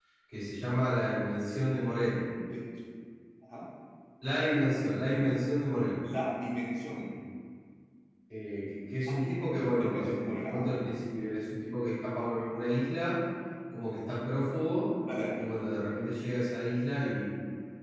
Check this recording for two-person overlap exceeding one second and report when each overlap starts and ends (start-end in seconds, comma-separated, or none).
9.1-10.7